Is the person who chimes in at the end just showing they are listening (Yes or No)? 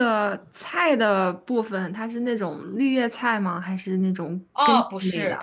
No